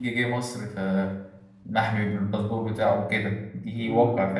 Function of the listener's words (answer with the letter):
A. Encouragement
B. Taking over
B